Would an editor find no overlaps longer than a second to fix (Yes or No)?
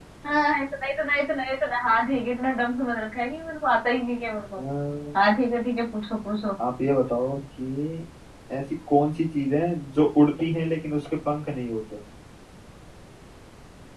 Yes